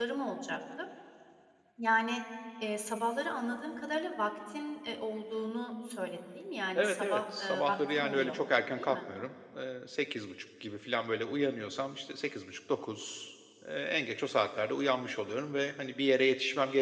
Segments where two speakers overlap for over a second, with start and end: 6.8-8.3

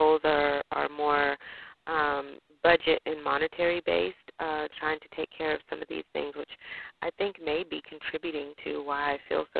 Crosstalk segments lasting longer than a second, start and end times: none

